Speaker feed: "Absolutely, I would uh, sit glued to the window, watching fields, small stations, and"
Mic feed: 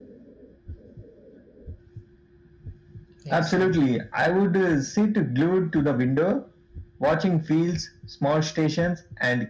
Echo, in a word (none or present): present